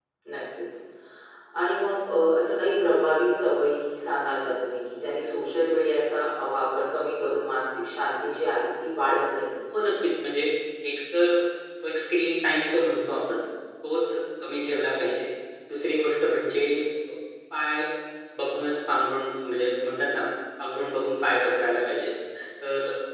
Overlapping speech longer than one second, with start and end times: none

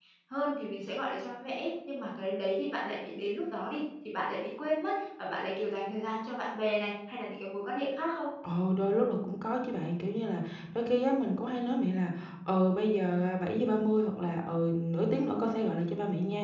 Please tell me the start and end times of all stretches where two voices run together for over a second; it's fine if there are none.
none

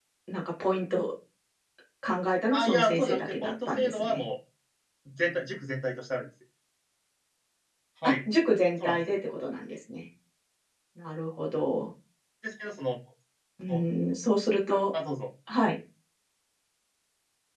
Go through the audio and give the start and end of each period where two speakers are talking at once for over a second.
2.5-4.2

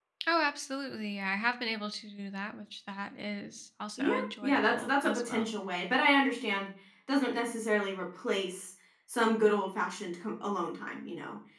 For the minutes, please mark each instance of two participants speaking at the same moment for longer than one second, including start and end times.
4.0-5.5

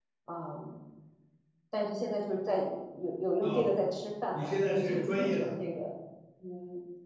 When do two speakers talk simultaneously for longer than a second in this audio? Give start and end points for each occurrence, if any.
4.3-5.6

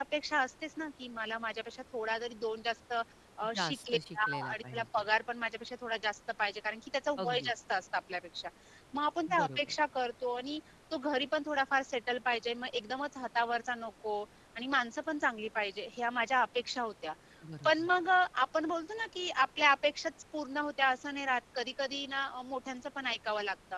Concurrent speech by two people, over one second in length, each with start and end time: 3.5-5.1

